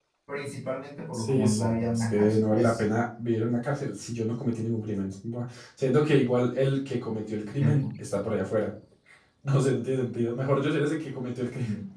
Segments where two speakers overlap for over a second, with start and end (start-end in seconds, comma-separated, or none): 1.1-2.8